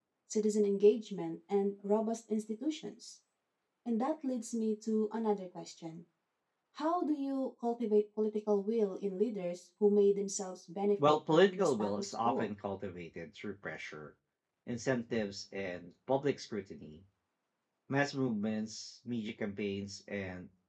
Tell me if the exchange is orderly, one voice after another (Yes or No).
No